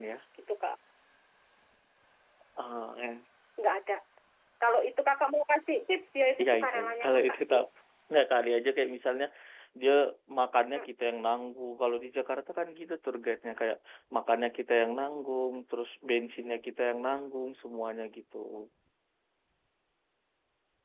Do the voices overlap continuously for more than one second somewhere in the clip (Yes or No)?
Yes